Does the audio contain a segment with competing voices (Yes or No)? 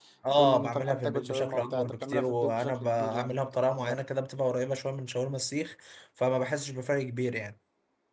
Yes